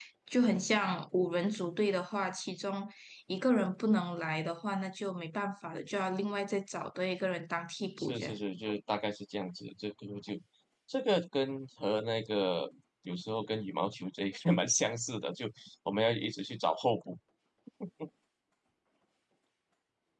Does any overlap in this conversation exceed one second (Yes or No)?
No